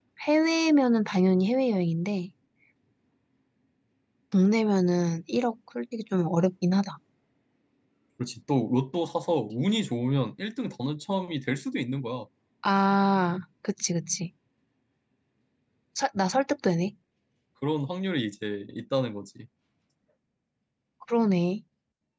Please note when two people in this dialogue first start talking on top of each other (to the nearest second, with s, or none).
none